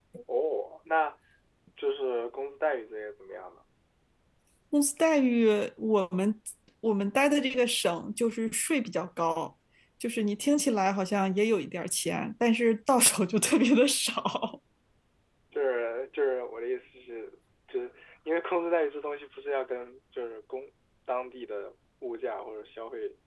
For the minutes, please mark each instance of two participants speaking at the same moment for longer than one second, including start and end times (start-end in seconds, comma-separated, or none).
none